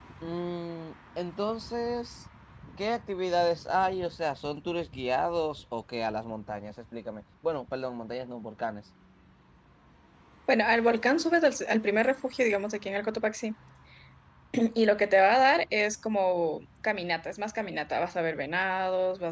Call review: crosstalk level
none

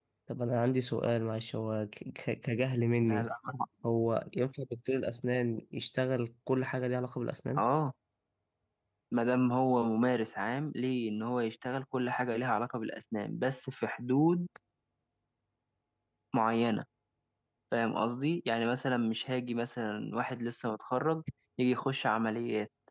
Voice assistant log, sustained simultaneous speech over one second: none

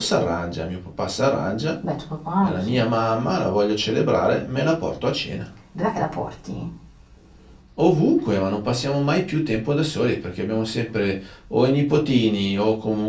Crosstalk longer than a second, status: none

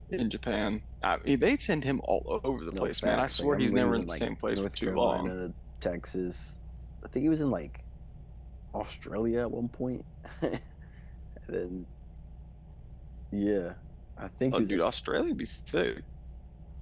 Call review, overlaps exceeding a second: present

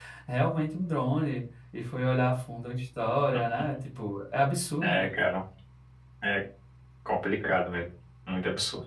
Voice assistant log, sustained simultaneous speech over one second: none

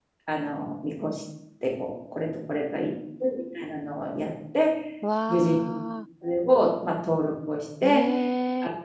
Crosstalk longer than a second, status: none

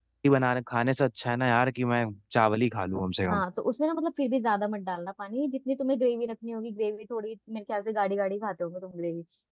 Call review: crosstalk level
none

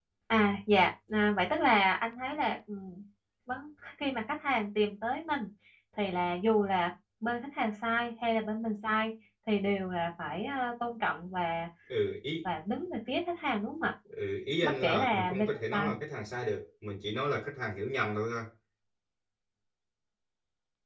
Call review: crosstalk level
present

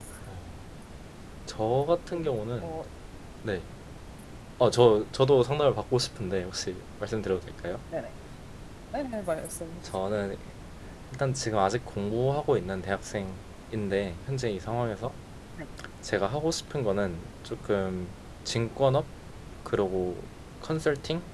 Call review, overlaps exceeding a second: none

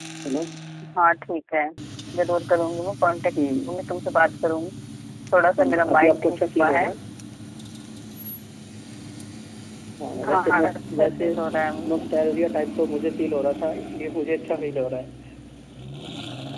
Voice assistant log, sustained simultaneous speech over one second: present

